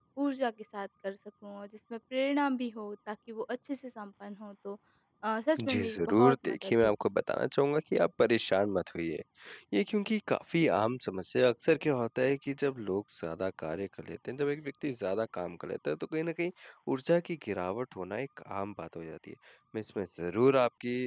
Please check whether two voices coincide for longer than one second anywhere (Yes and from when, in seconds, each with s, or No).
Yes, from 5.6 s